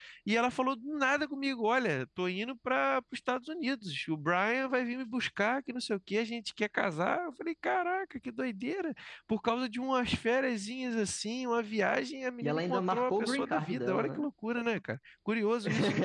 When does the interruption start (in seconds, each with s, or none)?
12.4 s